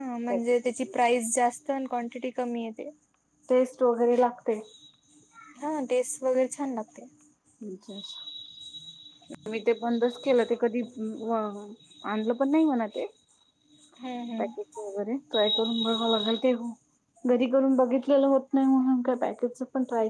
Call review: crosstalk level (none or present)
none